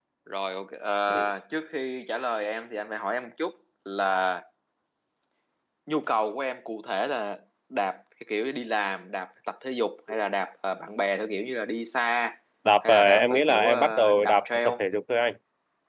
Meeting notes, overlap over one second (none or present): present